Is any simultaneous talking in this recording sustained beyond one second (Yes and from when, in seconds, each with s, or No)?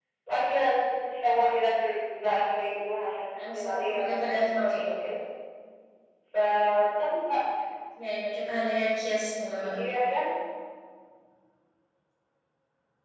Yes, from 3.3 s